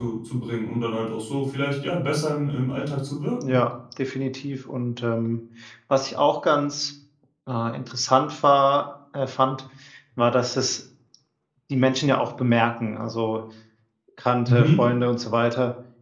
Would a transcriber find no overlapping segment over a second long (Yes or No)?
Yes